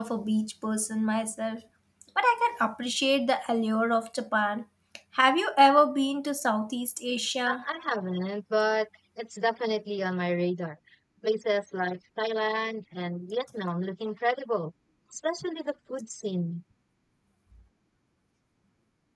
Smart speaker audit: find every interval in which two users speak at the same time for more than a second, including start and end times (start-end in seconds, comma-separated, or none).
none